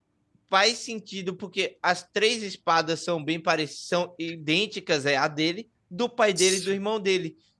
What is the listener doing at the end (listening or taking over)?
listening